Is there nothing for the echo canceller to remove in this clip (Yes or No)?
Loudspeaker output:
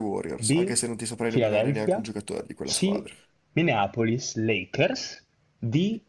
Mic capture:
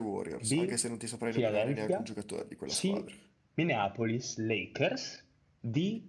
No